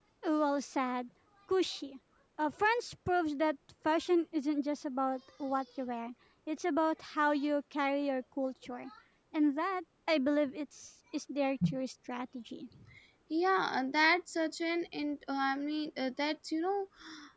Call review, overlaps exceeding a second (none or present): none